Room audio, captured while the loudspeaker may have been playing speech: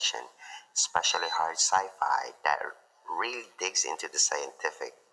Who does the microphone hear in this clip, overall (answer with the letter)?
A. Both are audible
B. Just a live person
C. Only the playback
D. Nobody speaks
C